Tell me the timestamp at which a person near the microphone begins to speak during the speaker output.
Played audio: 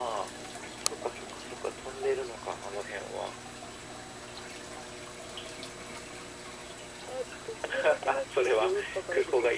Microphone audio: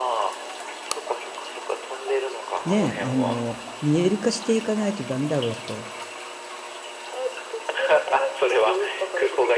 2.6 s

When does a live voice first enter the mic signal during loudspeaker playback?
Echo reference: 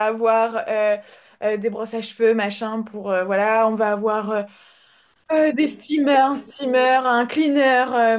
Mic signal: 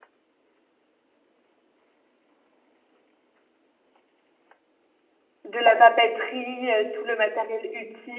5.4 s

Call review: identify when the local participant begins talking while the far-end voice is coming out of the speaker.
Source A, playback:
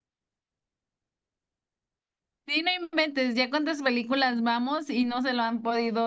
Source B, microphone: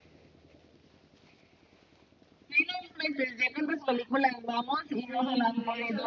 4.9 s

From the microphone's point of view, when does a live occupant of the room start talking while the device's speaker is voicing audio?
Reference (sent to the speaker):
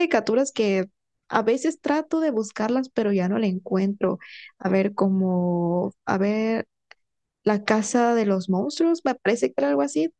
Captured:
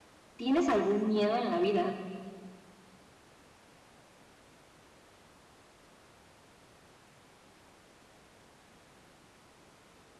0.3 s

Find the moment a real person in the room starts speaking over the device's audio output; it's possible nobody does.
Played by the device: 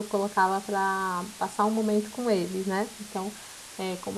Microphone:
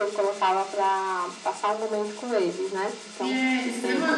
3.2 s

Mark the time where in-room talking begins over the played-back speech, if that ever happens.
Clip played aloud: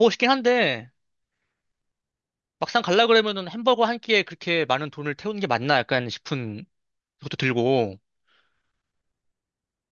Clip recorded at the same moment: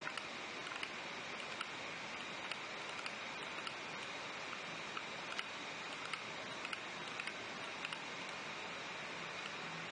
none

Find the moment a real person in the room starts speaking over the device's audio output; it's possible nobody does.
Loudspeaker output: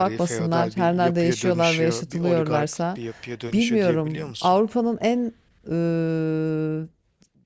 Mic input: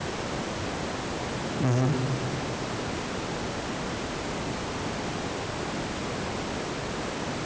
1.6 s

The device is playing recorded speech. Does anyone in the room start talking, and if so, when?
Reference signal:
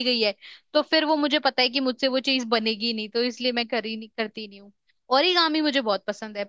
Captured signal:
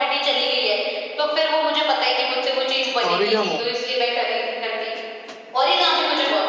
3.1 s

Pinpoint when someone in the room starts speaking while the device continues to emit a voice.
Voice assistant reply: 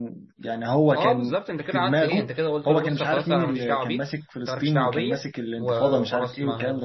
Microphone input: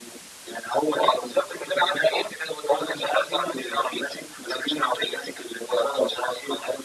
none

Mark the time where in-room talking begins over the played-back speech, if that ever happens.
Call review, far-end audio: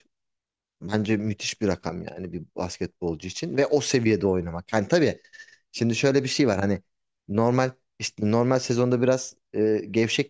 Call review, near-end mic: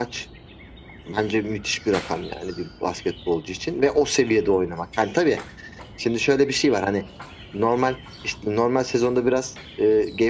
none

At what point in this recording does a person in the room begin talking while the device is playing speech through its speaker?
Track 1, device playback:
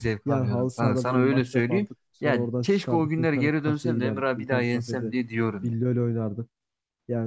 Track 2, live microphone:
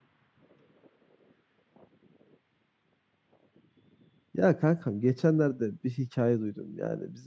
4.3 s

